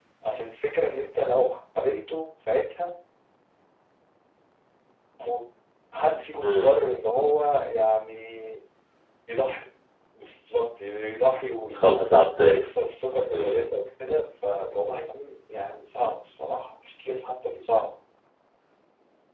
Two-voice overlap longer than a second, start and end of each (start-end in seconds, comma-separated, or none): none